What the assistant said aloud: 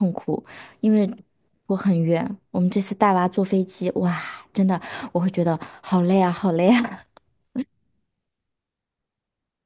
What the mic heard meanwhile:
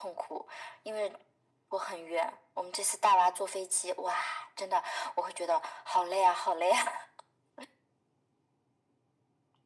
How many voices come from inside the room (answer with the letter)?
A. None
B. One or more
A